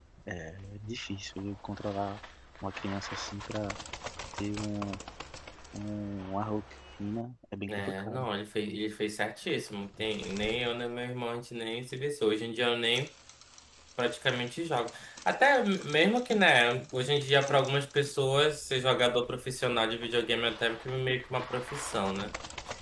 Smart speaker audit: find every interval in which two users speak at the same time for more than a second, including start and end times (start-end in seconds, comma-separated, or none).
none